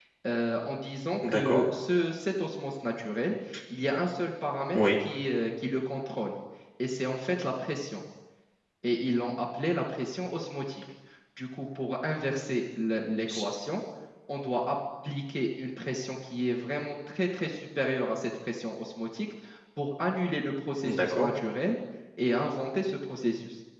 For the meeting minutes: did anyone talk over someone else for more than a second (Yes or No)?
No